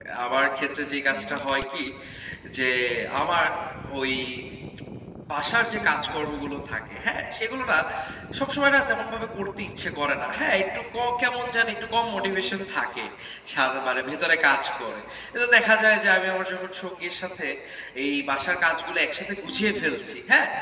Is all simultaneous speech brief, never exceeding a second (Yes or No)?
Yes